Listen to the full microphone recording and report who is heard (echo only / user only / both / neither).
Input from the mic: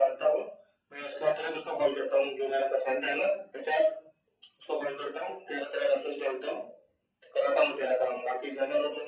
echo only